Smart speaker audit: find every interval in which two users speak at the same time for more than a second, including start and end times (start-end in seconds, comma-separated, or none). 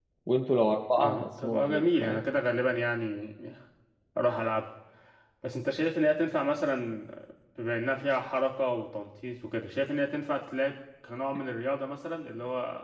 1.0-2.2